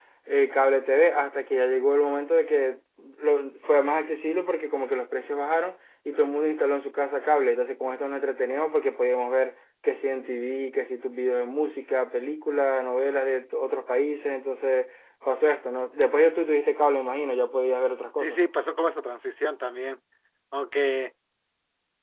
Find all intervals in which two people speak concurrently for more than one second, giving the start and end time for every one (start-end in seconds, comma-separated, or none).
none